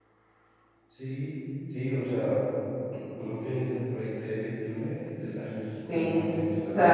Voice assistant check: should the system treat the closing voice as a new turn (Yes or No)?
Yes